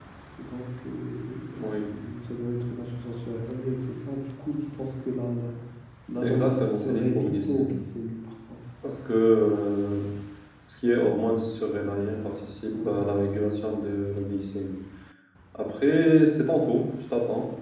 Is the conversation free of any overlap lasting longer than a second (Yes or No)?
No